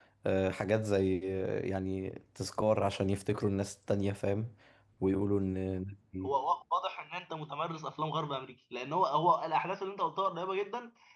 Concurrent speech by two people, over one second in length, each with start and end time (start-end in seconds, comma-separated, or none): none